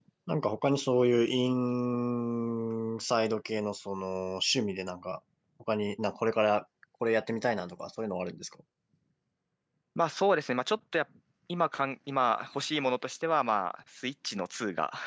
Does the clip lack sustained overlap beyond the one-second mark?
Yes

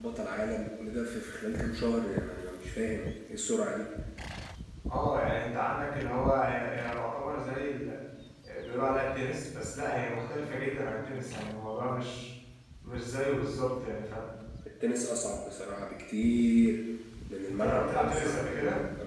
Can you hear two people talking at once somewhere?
Yes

